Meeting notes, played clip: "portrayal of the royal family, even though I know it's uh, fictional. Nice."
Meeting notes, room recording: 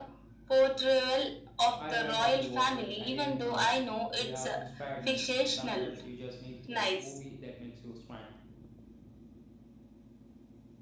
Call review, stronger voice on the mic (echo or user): echo